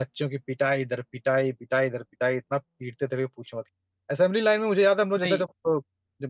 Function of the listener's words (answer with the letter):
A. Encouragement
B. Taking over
A